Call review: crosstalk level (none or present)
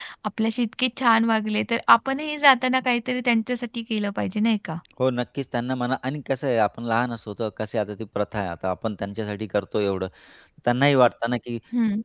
none